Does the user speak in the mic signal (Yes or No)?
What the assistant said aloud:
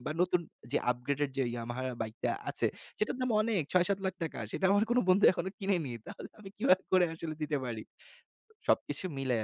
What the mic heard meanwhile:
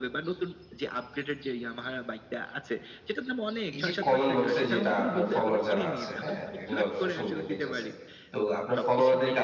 Yes